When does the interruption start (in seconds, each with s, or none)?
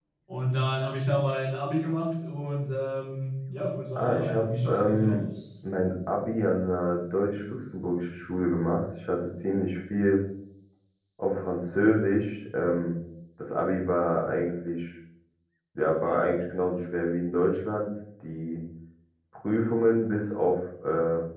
4.0 s